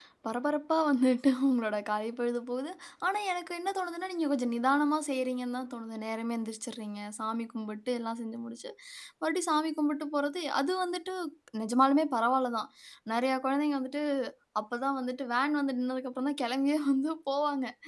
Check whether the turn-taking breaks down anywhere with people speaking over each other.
No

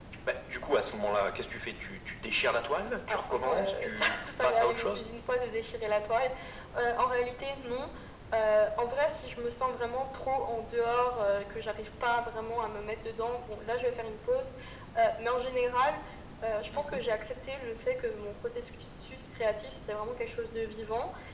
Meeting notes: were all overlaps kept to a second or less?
No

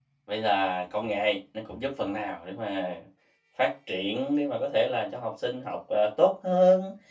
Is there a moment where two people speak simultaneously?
No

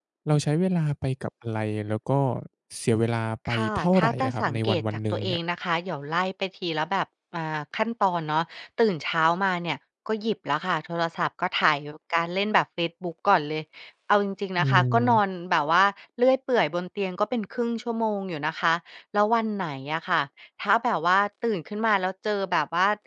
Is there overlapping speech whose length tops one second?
Yes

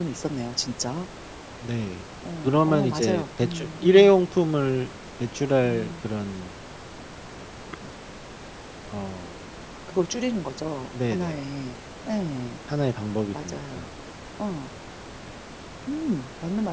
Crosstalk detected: Yes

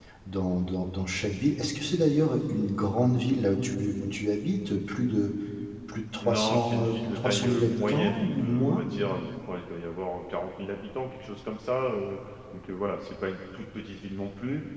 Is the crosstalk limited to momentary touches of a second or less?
No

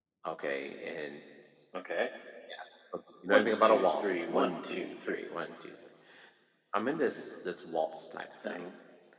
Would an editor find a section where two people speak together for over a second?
Yes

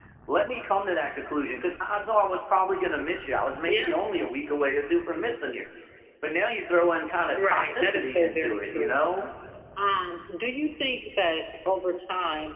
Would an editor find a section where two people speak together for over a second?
Yes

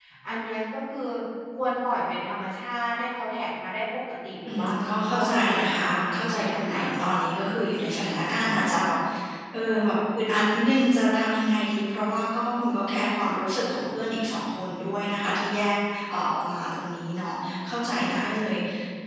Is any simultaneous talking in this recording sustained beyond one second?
Yes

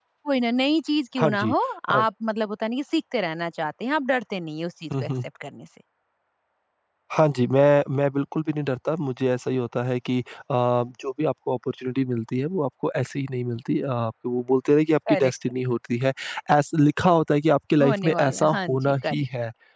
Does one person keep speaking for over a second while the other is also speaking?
Yes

